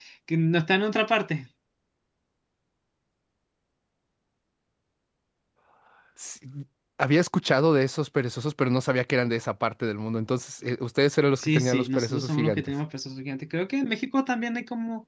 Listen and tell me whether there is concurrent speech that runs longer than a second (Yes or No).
Yes